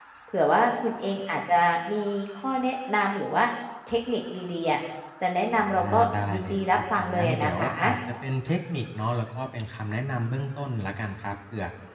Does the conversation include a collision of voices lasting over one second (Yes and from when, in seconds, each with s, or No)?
Yes, from 5.5 s